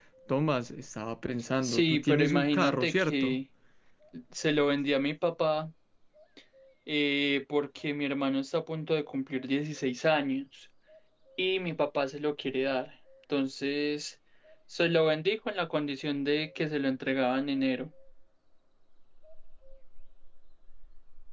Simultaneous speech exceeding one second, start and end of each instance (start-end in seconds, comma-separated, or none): 1.6-3.4